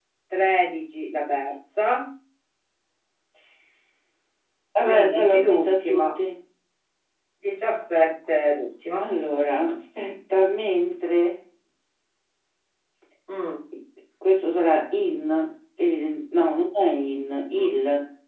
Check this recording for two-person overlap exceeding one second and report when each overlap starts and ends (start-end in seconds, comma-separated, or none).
4.8-6.1